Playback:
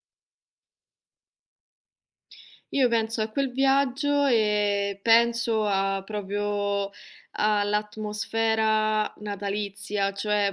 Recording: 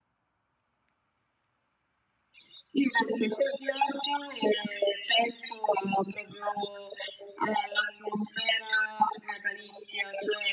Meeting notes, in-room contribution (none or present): none